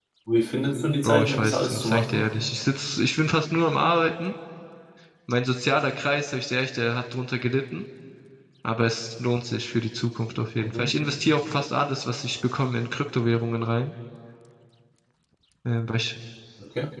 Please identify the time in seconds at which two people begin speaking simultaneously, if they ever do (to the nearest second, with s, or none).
1 s